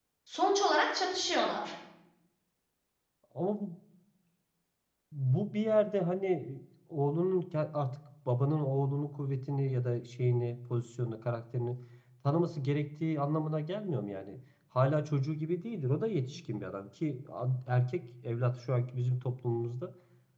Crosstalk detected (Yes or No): No